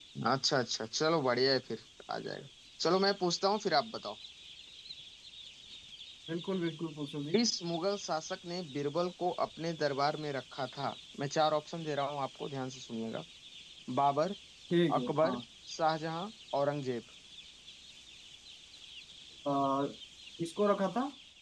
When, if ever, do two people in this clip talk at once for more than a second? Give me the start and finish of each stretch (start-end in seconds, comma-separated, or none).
none